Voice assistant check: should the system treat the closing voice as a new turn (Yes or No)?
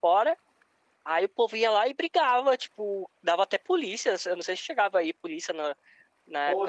Yes